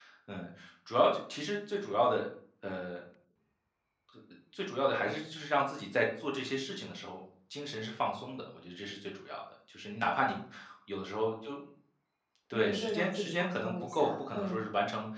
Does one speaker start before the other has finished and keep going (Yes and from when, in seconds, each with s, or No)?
Yes, from 12.5 s